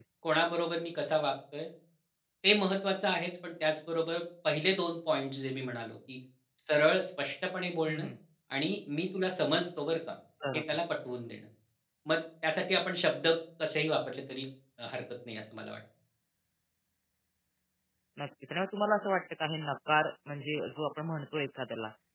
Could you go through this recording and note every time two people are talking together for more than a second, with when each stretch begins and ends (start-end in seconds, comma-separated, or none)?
none